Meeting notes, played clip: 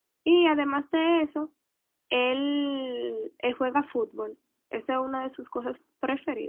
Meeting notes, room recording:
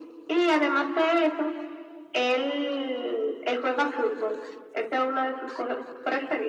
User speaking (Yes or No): No